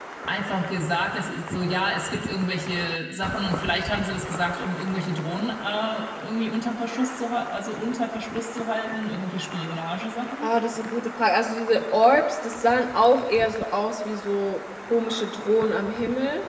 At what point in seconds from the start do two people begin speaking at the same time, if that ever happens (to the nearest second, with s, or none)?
none